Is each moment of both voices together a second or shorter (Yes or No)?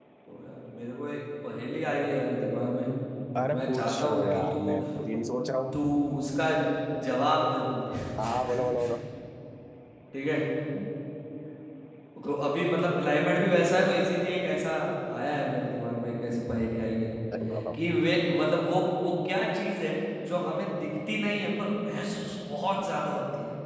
No